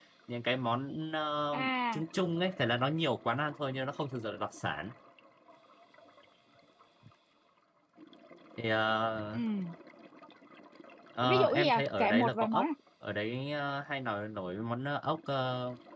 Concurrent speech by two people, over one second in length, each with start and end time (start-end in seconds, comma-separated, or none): 11.2-12.7